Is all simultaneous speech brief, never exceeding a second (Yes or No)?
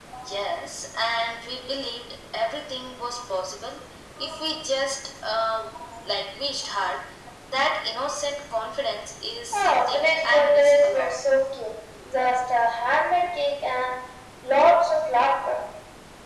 No